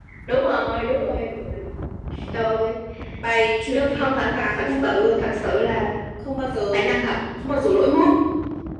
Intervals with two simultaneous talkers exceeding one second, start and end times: 3.7-5.1

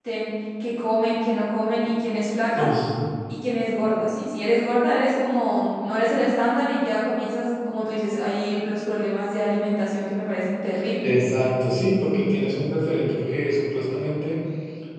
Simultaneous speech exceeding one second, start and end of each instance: none

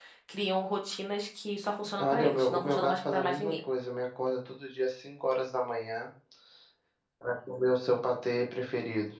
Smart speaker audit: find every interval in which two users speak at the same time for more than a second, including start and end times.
2.0-3.6

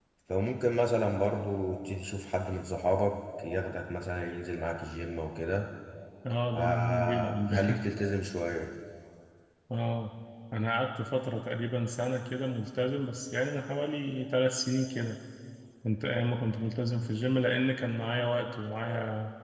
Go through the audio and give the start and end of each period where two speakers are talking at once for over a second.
6.5-7.8

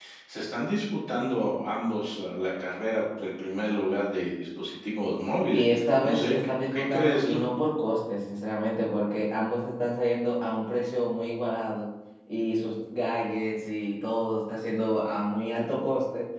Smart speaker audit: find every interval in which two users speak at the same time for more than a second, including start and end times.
5.5-7.4

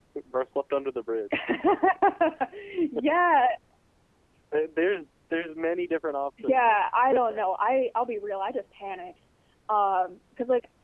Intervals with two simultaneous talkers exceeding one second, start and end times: none

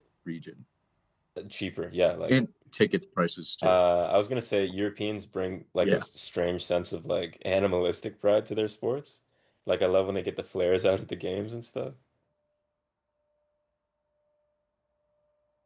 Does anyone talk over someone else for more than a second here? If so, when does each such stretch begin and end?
none

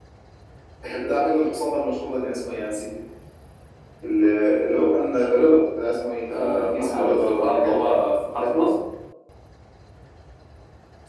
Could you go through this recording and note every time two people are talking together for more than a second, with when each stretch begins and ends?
6.3-7.8

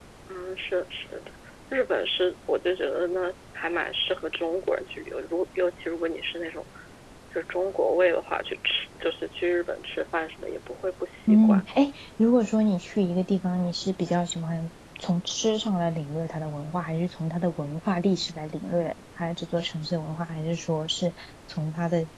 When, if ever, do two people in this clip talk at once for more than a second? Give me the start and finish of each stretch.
none

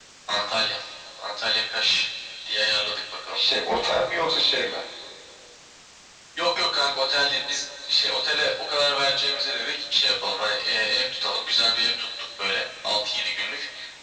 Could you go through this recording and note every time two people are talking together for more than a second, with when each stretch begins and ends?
none

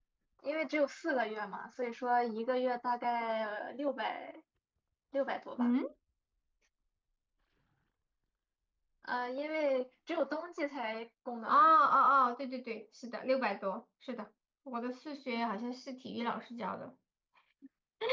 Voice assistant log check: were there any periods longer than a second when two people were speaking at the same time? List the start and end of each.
none

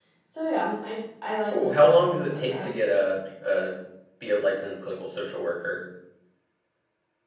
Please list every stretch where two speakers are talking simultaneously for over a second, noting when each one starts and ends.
1.5-2.7

